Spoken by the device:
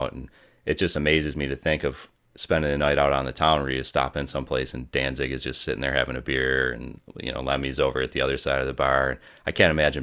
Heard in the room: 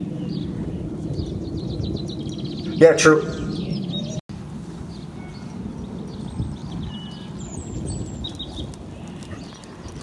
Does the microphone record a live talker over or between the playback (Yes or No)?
Yes